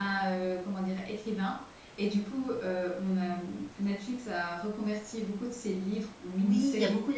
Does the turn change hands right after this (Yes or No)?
Yes